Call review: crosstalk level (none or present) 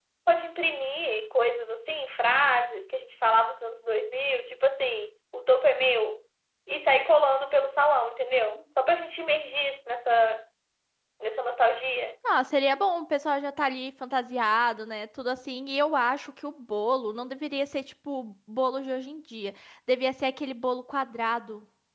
none